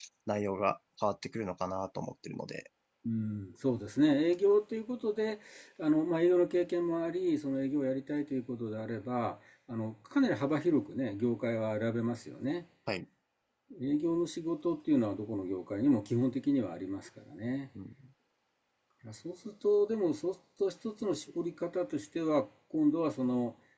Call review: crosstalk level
none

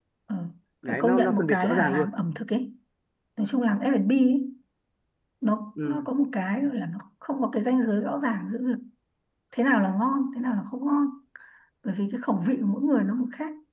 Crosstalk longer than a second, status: present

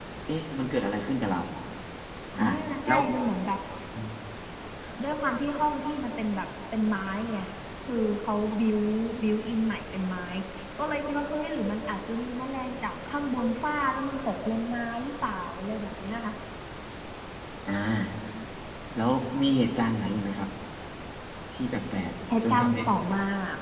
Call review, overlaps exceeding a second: none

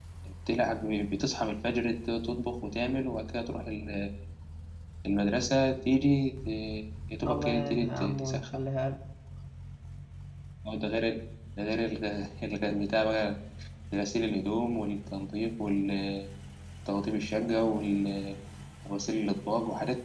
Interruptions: present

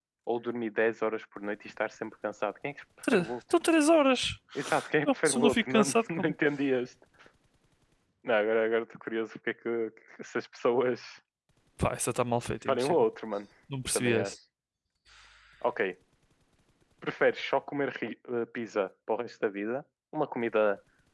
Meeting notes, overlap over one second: present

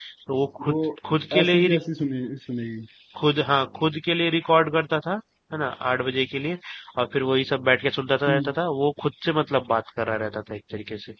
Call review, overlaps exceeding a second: none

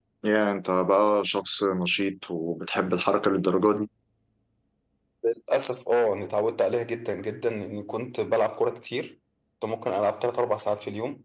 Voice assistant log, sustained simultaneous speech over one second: none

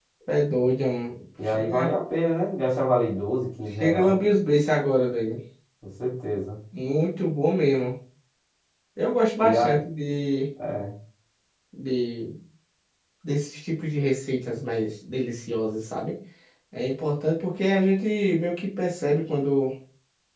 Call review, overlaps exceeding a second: none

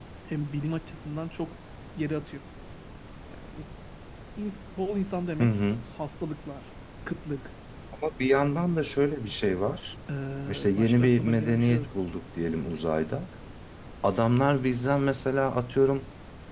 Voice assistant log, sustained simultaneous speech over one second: present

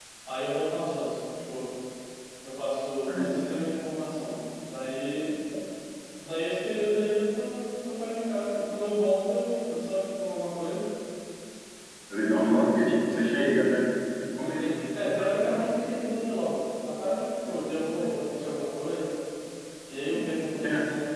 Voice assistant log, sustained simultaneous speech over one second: present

